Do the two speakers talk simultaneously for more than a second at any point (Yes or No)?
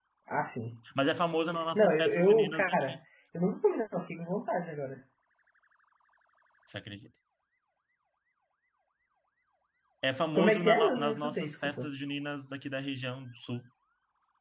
Yes